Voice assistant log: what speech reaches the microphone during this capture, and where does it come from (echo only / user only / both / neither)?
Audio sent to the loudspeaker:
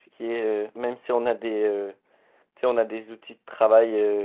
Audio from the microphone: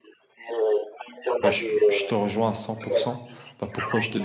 both